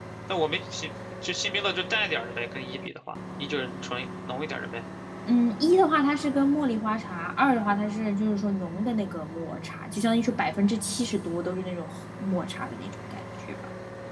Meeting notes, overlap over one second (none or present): none